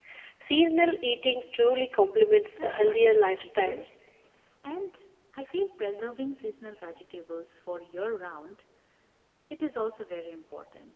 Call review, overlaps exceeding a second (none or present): present